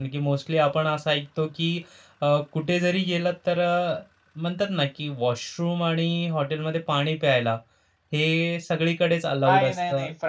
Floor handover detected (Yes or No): Yes